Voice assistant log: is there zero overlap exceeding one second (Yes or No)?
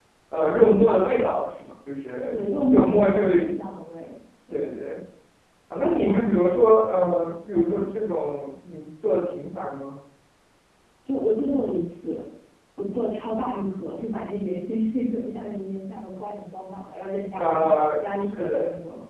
No